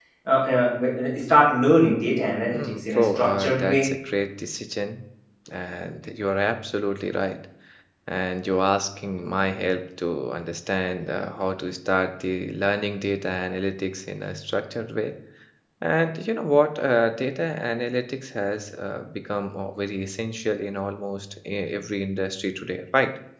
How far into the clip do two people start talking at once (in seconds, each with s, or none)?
2.5 s